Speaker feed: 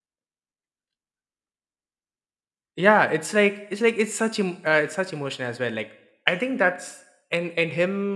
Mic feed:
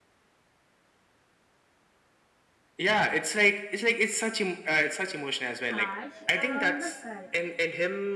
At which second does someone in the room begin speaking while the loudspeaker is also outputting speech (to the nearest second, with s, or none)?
6 s